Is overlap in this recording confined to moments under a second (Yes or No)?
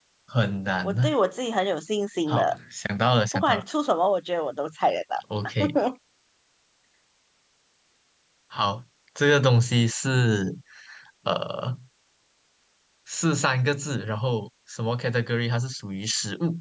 Yes